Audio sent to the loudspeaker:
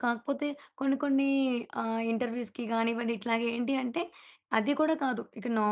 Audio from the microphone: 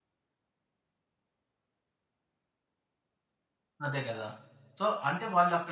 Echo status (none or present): none